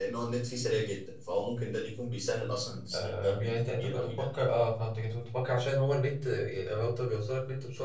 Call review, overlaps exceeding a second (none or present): present